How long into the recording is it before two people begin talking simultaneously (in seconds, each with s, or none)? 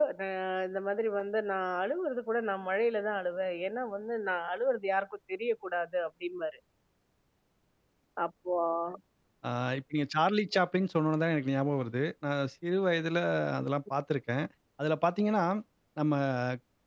none